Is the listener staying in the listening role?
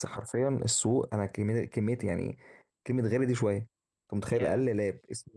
Yes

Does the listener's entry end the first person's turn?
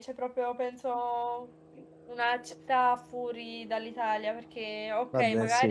No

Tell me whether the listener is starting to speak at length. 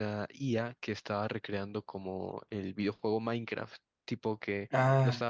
No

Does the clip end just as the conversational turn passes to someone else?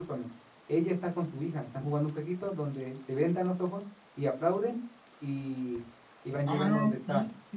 Yes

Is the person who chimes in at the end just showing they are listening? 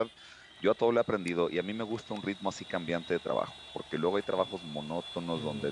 No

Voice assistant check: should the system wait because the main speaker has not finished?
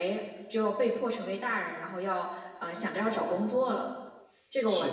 No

